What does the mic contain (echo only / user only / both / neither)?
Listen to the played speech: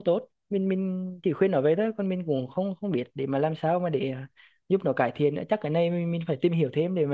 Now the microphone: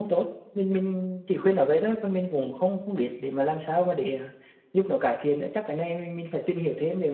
echo only